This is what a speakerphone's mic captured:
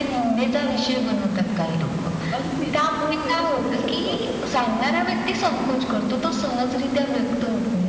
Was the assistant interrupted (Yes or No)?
No